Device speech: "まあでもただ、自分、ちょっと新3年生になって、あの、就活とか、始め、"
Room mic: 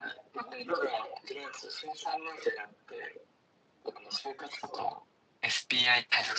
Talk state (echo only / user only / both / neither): both